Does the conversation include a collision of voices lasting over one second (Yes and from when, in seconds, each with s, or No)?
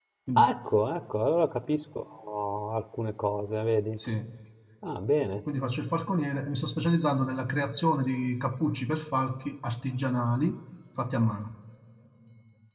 No